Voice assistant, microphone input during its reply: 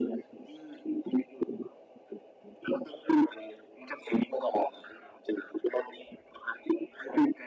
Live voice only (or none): none